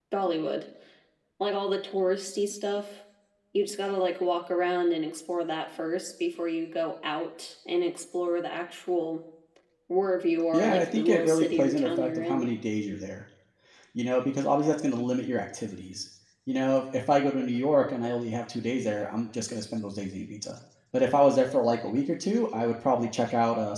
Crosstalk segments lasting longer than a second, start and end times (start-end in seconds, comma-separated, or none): 10.5-12.5